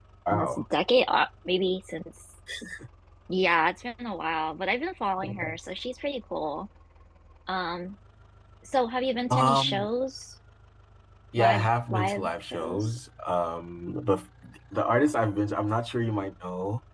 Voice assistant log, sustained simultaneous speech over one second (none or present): present